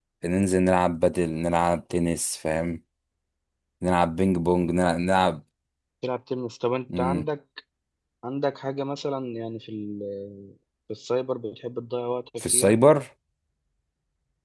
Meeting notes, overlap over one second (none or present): none